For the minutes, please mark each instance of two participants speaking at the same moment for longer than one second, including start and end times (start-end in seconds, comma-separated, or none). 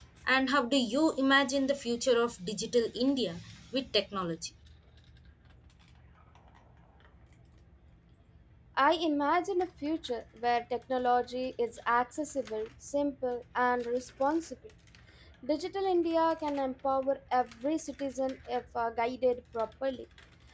none